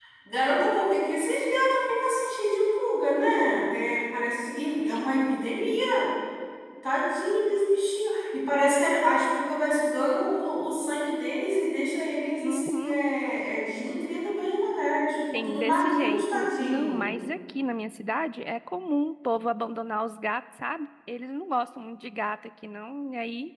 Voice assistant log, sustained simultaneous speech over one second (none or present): present